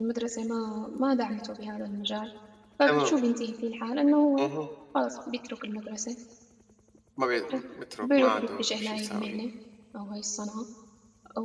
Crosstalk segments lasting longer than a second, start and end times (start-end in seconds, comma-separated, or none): 8.0-9.4